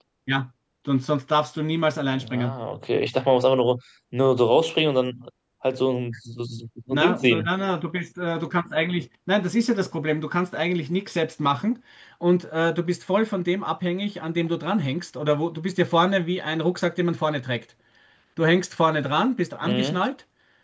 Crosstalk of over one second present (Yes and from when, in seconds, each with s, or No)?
No